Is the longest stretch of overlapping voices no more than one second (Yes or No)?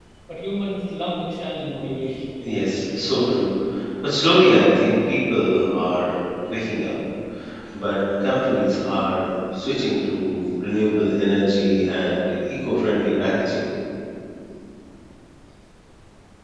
Yes